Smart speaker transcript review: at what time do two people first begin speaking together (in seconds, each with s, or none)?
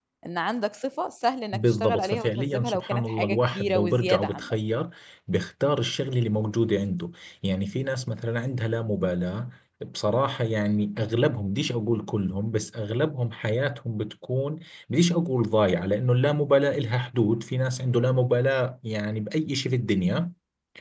1.5 s